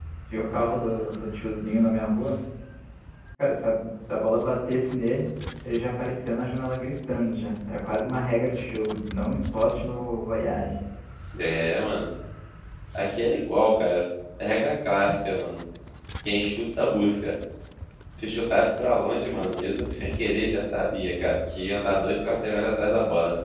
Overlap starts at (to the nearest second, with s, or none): none